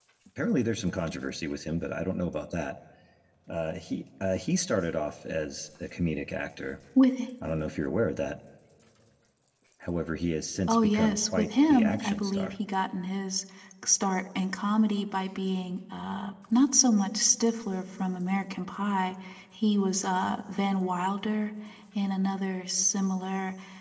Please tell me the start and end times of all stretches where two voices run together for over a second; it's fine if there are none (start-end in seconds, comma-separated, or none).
10.7-12.5